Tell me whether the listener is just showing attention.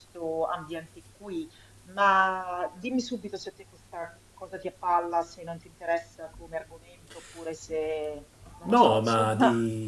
No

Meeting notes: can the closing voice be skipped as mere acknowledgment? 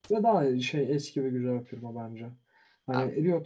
Yes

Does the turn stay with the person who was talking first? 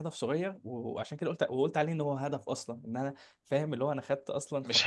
Yes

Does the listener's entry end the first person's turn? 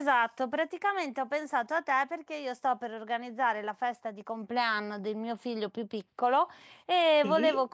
No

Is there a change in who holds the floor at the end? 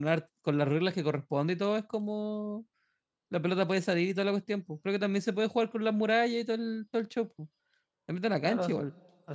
Yes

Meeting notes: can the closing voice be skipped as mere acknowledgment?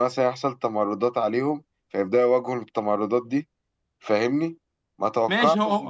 No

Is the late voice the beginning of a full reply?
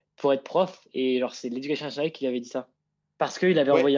No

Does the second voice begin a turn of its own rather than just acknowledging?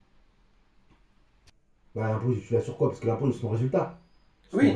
Yes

